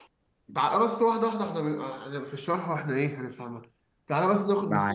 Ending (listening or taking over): listening